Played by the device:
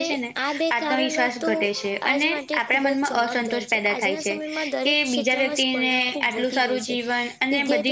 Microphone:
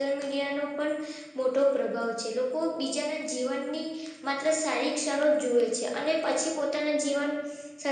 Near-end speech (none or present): present